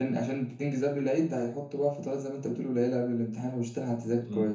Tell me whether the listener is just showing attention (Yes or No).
No